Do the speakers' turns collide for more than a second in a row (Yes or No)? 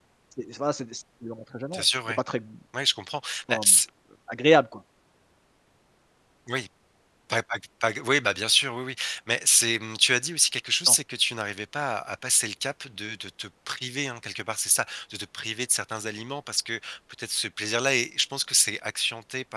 No